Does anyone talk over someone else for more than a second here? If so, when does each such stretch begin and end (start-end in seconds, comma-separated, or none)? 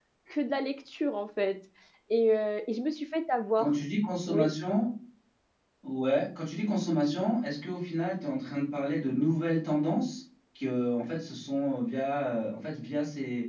none